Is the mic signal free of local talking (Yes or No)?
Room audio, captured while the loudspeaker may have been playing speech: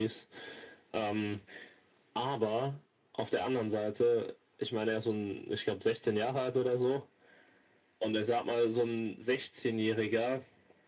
Yes